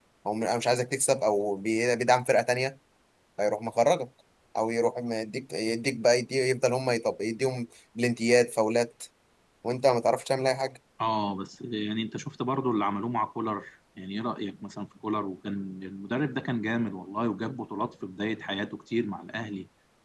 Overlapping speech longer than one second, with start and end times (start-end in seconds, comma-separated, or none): none